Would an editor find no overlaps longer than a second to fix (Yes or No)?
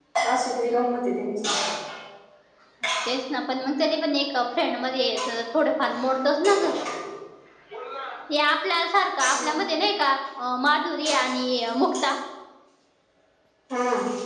Yes